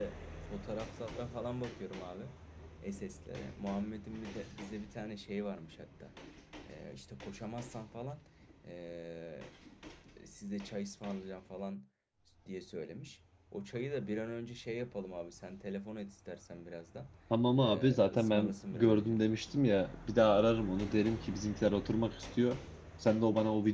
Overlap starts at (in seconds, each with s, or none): 17.6 s